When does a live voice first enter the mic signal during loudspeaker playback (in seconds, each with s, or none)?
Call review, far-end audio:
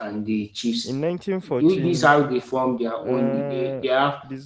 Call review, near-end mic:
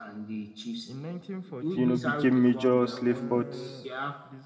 1.7 s